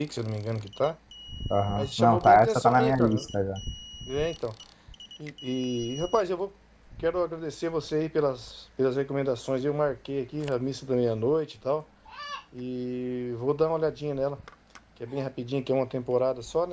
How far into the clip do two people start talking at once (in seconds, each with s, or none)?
1.8 s